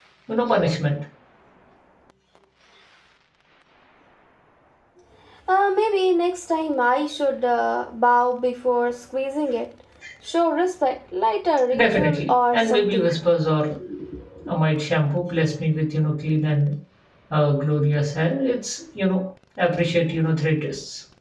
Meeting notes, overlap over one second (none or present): present